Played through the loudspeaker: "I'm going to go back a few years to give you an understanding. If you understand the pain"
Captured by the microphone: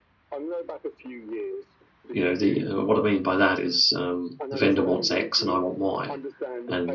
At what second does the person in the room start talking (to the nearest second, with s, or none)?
2 s